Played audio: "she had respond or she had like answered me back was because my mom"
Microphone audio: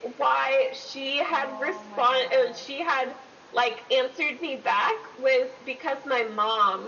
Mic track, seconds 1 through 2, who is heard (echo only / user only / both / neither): both